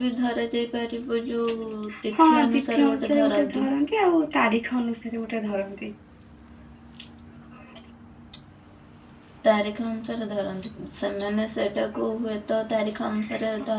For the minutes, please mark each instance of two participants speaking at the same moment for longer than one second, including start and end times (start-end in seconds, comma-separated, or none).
2.1-3.7